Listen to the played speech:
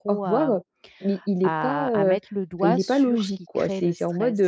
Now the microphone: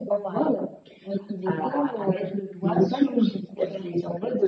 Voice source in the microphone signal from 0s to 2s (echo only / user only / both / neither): echo only